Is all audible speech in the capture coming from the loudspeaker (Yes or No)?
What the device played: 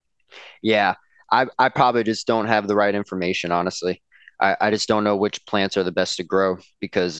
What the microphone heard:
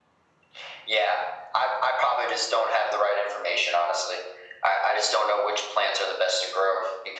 Yes